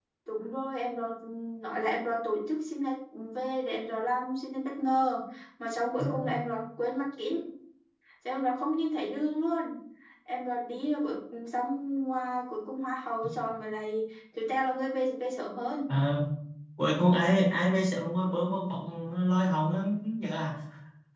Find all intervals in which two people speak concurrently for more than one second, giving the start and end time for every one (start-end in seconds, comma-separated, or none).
none